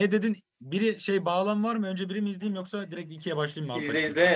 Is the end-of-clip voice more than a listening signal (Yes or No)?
Yes